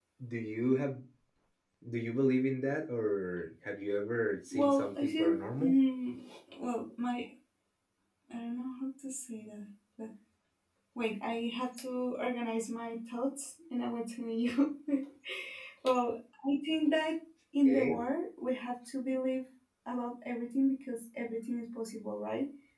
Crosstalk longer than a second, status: present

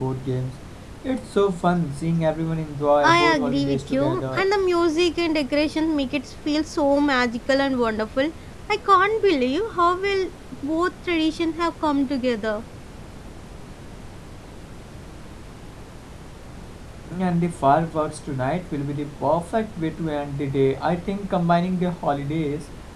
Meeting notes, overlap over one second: present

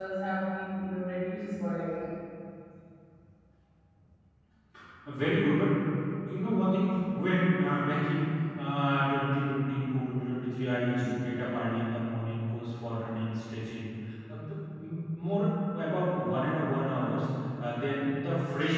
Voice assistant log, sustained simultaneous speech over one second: none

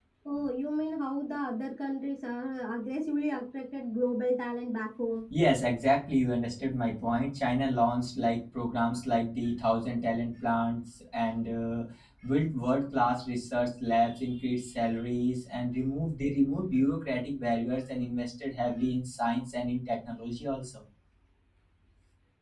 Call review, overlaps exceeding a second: none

